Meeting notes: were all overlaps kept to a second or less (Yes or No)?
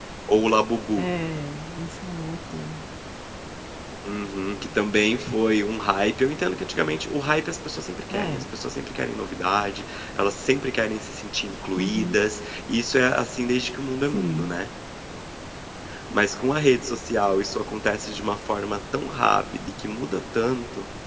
Yes